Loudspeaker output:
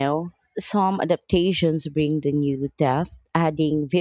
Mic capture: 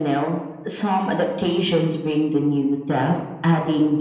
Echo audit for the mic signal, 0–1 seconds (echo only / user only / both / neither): echo only